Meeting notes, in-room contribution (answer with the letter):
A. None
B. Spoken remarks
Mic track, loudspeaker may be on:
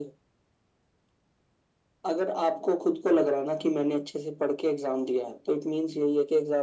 A